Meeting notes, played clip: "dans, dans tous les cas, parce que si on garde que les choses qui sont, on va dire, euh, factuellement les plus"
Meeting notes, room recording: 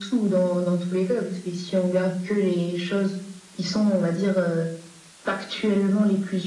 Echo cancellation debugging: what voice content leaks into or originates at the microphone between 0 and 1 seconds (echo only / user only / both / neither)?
echo only